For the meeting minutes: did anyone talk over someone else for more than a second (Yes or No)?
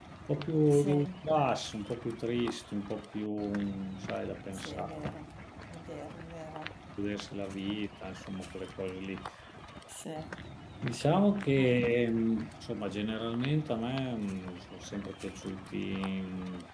No